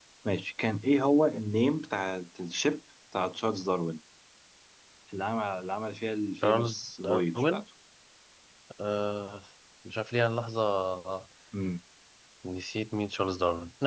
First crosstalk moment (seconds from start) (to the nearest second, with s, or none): 6 s